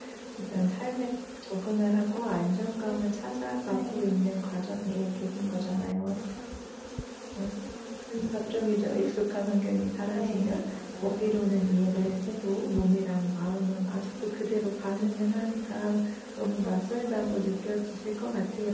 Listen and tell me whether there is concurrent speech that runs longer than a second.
No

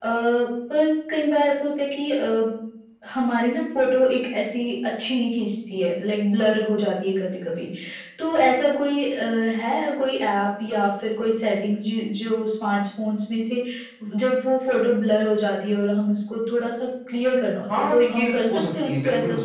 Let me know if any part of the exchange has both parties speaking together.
Yes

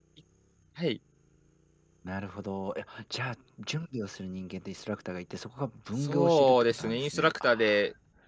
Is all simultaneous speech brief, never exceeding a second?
No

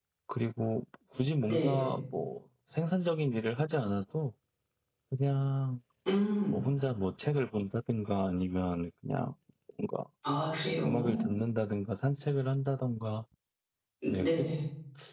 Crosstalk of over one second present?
No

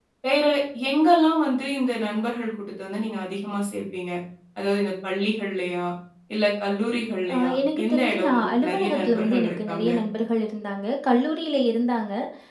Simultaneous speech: Yes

